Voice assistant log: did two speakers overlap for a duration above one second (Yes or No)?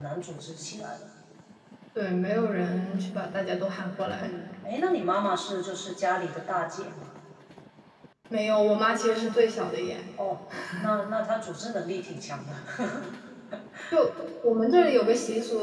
No